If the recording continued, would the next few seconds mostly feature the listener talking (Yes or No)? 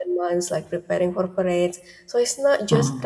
No